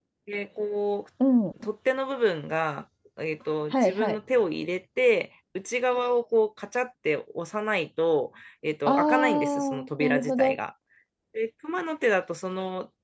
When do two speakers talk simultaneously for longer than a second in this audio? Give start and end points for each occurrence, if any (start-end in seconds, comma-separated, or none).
8.8-10.6